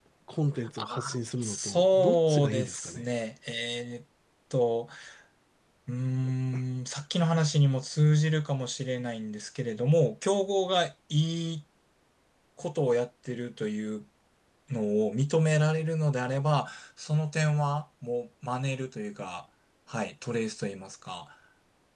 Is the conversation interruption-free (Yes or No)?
No